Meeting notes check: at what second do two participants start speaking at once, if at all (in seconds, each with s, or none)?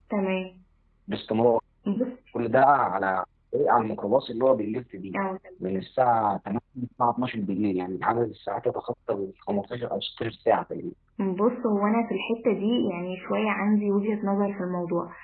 none